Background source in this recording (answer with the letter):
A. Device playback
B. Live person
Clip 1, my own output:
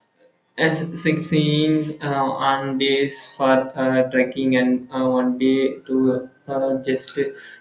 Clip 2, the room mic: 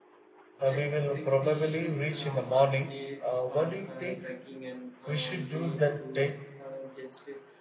A